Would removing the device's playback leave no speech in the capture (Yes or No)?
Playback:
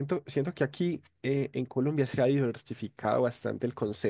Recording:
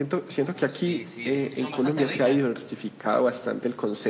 No